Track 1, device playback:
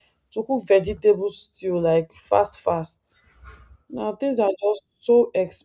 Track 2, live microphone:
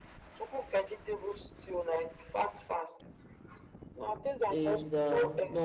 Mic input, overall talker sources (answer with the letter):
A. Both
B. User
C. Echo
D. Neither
A